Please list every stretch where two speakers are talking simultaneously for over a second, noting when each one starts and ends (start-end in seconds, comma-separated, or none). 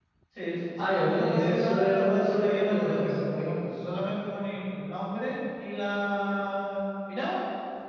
0.8-3.1